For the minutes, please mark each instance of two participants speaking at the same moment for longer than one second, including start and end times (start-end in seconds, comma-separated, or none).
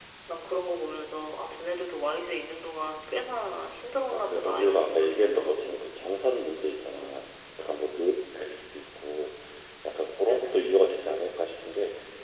4.1-5.9